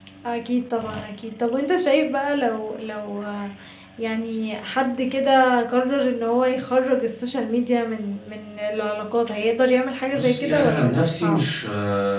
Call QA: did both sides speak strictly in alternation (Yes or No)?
No